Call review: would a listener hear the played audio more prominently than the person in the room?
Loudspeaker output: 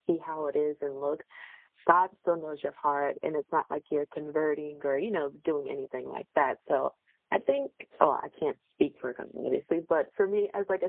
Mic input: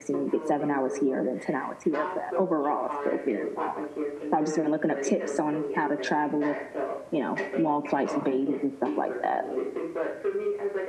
No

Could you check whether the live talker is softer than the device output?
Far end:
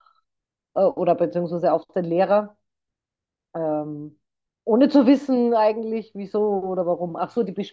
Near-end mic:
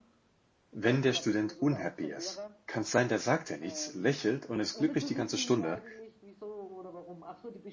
No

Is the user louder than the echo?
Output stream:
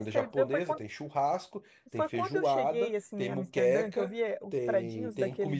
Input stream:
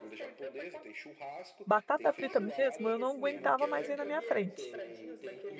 Yes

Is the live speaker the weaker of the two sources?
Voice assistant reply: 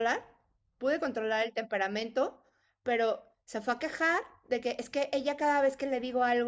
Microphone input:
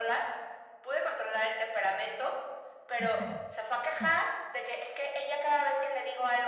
Yes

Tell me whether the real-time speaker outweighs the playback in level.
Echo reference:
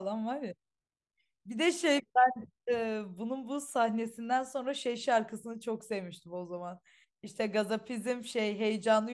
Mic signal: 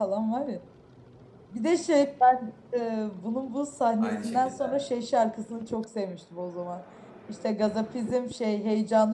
No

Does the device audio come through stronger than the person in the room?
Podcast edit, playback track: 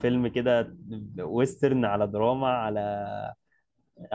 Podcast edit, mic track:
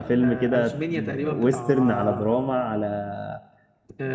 Yes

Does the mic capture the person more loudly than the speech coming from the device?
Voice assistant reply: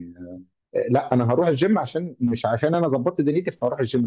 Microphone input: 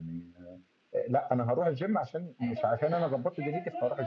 No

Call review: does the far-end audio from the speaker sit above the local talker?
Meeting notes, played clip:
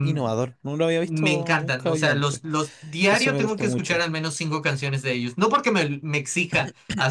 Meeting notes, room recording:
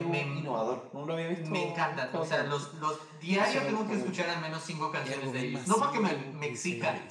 Yes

